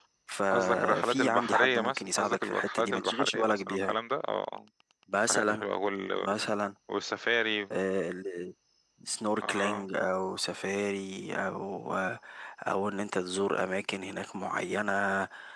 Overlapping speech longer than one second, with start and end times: 0.5-4.0

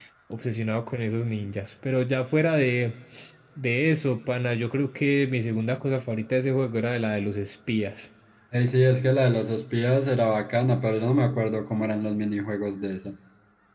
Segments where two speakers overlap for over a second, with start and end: none

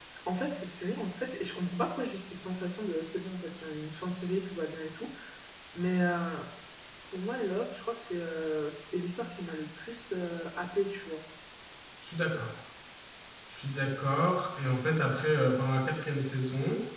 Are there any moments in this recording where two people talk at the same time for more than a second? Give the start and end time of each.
none

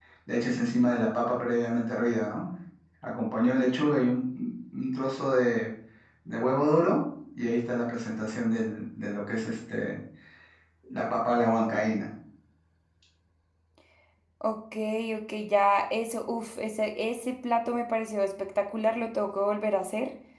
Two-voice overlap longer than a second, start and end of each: none

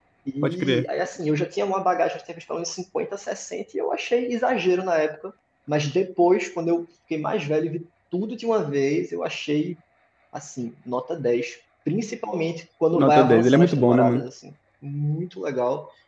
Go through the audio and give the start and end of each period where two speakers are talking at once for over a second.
12.9-14.2

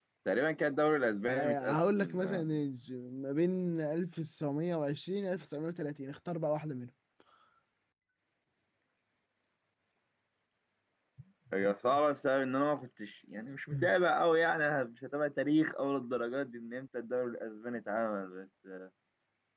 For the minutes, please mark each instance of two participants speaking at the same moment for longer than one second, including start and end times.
1.3-2.6

